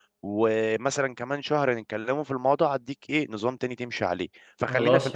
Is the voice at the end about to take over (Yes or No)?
No